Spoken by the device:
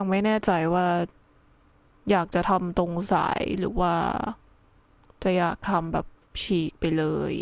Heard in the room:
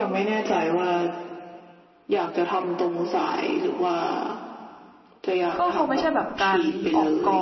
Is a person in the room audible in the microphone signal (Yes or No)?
Yes